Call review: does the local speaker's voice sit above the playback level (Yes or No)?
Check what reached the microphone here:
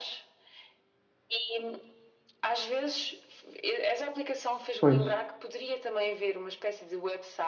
Yes